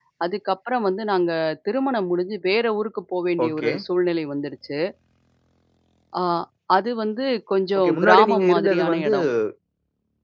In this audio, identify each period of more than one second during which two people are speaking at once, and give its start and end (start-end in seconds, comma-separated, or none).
7.8-9.1